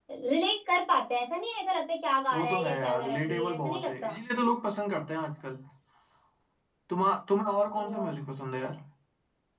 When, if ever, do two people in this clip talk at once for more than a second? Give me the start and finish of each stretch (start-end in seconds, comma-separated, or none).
2.3-4.1